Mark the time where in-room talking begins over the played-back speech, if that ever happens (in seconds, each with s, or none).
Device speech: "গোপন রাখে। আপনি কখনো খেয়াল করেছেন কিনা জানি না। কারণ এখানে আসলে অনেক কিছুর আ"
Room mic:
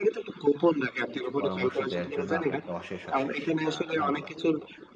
1.1 s